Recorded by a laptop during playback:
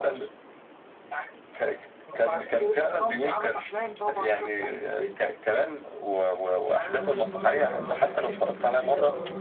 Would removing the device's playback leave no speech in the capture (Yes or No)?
No